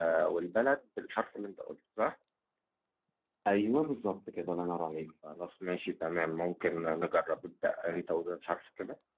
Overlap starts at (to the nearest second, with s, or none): none